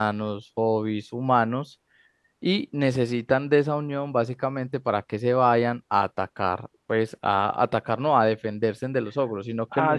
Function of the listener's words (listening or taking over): taking over